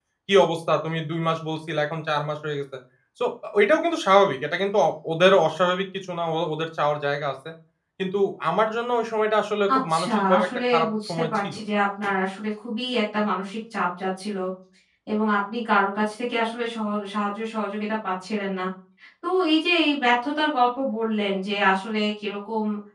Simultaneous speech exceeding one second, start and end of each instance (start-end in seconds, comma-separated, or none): 9.7-11.5